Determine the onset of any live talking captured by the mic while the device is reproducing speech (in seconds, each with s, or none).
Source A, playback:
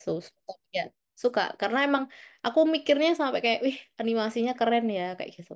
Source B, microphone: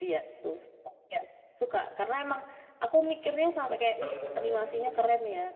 4.0 s